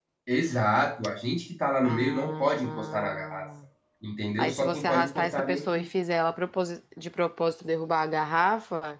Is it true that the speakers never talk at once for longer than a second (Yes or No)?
No